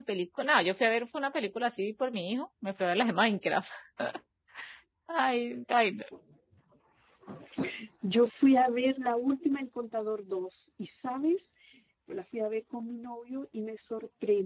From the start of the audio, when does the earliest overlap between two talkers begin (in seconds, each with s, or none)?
none